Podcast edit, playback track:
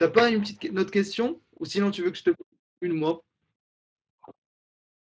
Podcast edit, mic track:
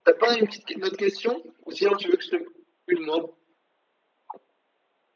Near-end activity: none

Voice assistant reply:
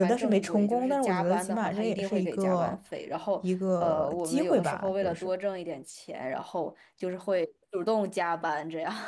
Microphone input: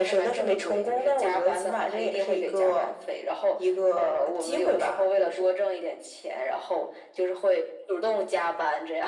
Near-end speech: none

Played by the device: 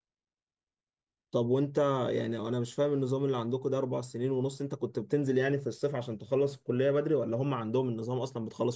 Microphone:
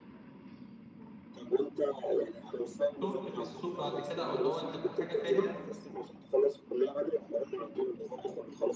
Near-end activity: present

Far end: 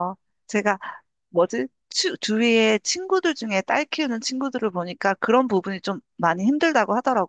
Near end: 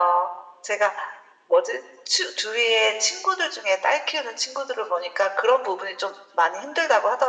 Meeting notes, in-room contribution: none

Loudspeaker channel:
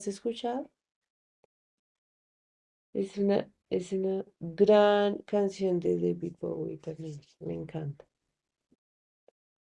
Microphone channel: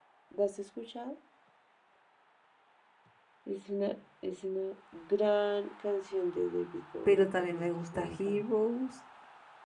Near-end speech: present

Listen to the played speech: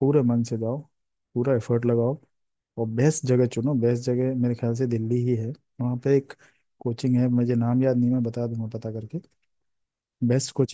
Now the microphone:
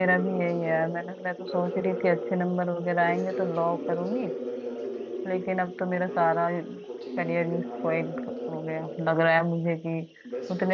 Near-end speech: present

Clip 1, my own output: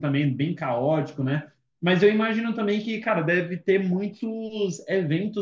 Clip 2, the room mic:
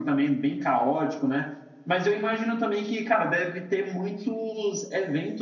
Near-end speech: none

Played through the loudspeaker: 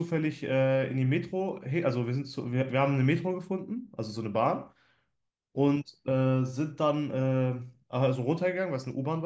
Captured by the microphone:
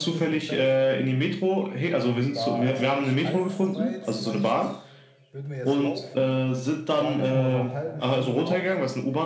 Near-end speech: present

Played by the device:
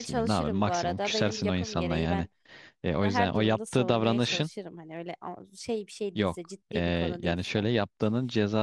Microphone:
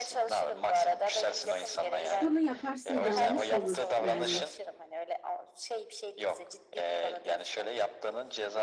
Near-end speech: present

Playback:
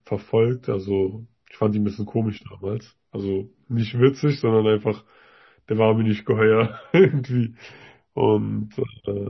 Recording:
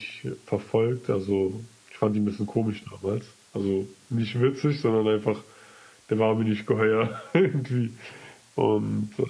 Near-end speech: none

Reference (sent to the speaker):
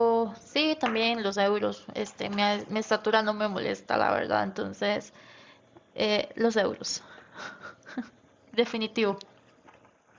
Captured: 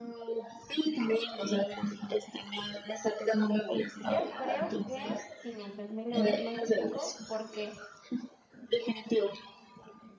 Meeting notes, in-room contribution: present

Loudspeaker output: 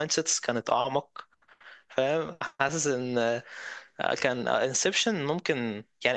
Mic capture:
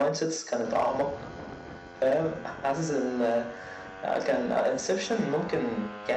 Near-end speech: none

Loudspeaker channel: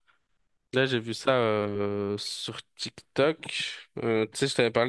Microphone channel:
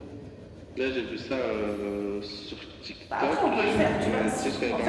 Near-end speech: present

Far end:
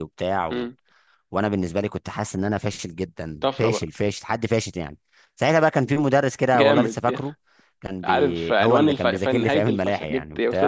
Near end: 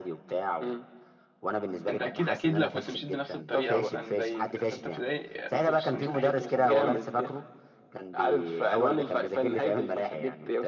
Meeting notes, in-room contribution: present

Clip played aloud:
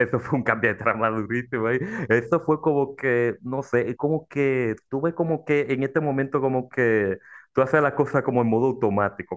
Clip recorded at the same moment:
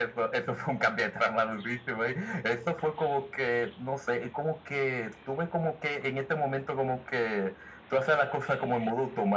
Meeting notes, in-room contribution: none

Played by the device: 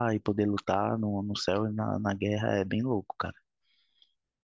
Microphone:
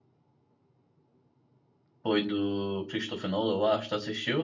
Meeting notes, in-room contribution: present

